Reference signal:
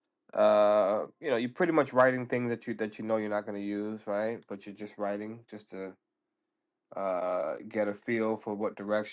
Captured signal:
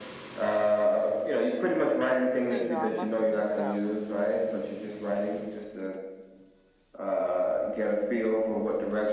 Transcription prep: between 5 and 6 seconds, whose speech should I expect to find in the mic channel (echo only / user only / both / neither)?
echo only